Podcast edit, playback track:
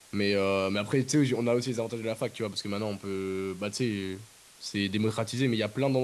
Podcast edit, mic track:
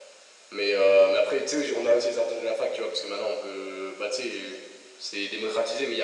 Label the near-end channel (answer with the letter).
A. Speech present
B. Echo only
B